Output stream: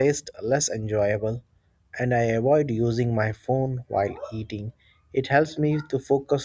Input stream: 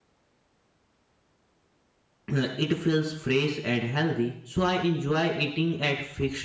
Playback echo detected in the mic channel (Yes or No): No